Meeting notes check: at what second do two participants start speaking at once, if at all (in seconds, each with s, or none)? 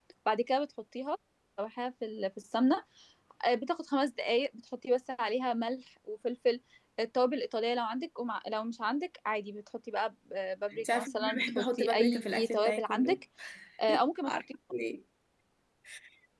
10.7 s